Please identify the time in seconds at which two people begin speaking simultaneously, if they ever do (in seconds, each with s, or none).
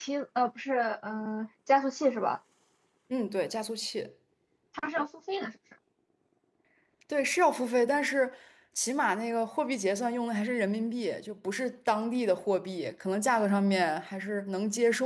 none